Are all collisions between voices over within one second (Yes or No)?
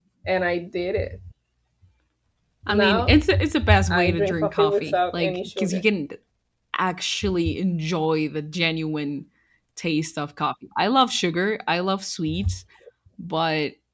No